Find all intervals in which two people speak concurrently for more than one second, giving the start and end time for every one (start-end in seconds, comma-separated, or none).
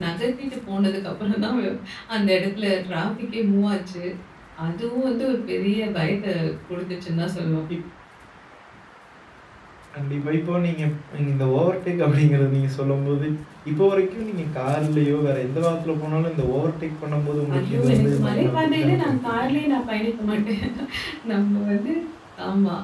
17.5-19.5